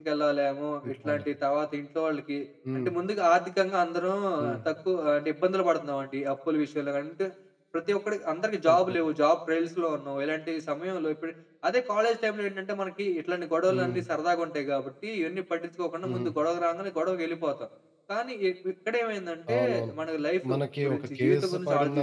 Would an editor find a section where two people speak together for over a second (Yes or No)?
Yes